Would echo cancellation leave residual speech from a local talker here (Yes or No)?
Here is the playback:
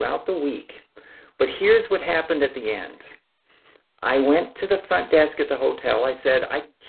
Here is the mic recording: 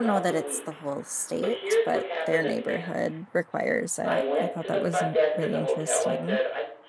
Yes